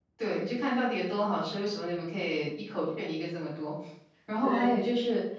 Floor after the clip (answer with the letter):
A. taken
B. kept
B